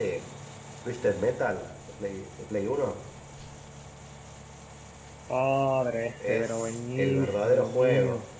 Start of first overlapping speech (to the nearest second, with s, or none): 6 s